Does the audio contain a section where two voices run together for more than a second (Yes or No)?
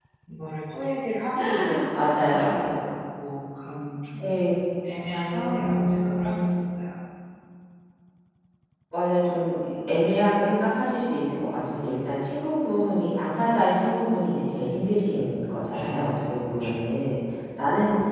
Yes